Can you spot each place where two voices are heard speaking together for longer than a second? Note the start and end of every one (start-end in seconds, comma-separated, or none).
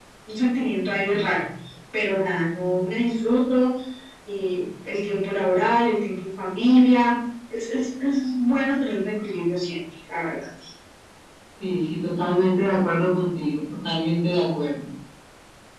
none